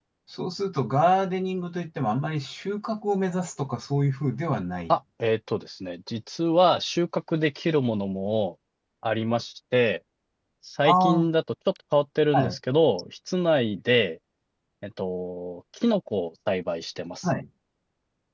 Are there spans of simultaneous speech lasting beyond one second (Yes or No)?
No